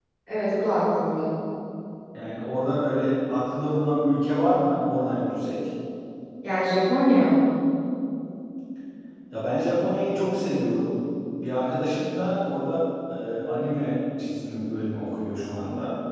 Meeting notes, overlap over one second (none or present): none